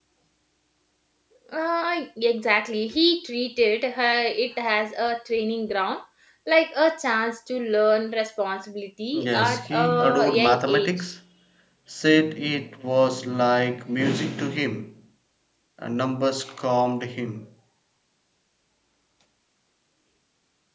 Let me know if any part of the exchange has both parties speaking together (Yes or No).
Yes